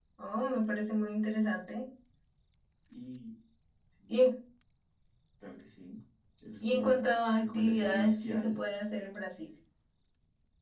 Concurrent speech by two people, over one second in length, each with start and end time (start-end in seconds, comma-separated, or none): 6.7-8.6